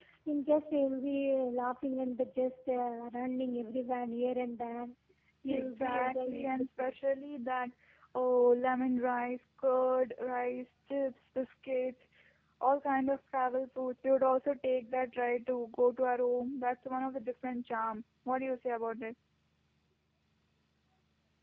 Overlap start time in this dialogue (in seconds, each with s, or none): 5.5 s